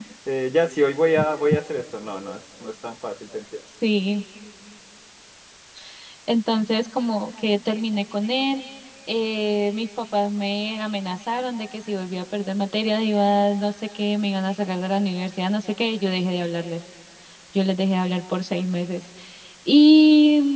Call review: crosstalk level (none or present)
none